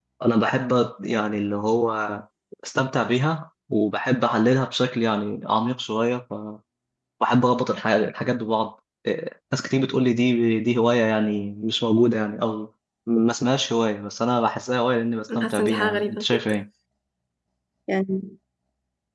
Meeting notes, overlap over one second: present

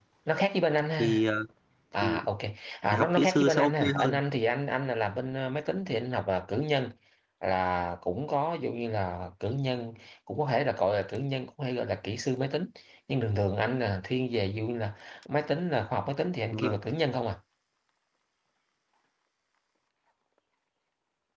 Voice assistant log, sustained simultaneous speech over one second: present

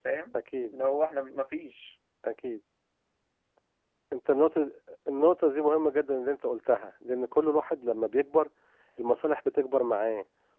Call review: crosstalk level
none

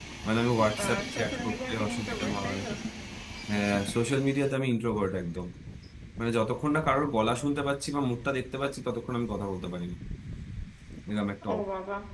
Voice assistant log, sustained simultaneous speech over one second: present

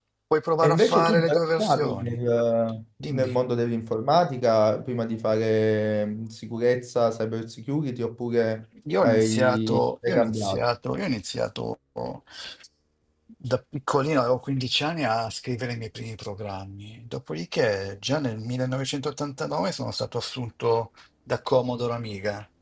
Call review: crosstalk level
present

